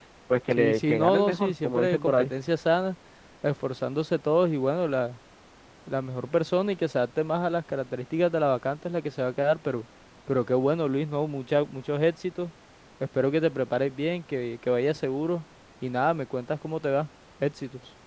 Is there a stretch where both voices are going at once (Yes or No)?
Yes